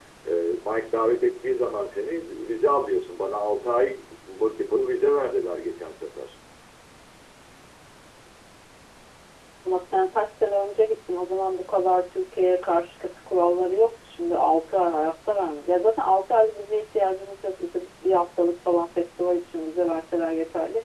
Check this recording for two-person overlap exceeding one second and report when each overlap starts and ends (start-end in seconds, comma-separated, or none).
none